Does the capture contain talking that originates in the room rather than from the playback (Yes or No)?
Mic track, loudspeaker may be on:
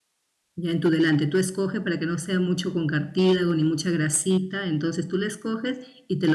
Yes